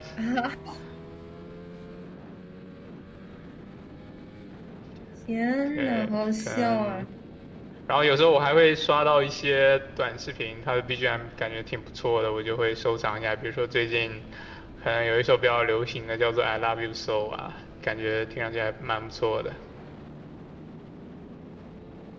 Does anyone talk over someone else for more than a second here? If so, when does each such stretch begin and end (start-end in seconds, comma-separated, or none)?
5.7-7.0